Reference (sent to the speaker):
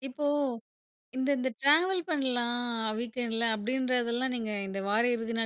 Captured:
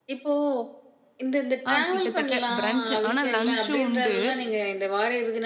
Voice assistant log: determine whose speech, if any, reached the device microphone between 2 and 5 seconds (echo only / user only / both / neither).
both